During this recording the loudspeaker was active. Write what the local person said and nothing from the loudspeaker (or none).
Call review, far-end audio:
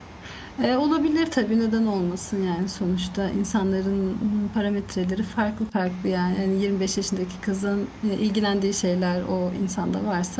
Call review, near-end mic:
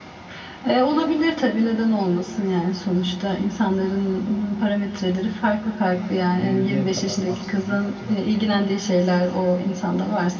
yani 20'ye kadar maksimum açılabilir. Yani